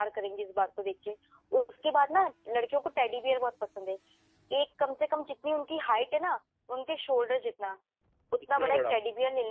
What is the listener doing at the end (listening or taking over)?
listening